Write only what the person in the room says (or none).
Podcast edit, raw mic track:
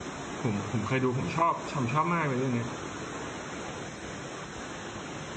ผมผมเคยดูผมชอบชอบชอบมากเลยเรื่องเนี้ย